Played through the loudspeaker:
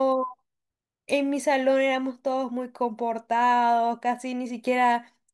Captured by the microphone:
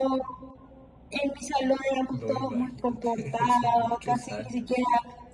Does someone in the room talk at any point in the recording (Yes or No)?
Yes